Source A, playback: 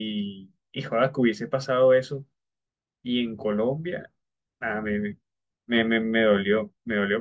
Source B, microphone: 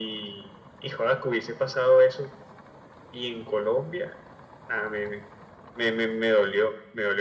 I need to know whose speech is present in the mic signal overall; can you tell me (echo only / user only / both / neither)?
echo only